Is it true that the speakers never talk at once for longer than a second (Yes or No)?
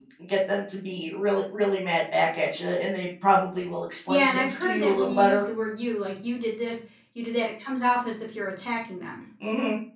No